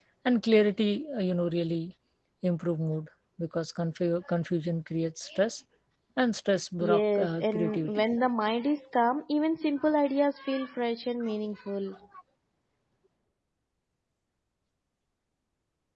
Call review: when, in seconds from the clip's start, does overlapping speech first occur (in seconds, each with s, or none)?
6.8 s